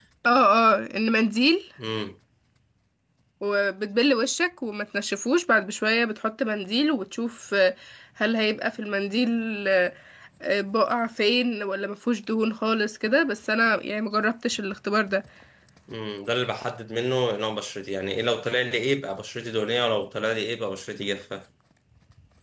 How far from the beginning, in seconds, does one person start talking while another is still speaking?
none

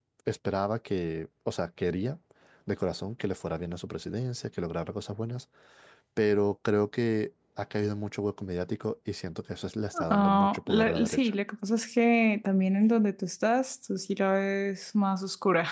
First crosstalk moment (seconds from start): 9.9 s

